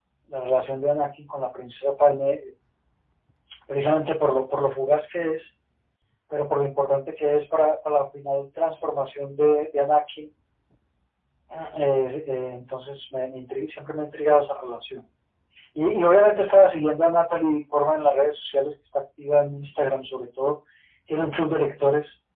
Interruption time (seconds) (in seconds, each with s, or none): none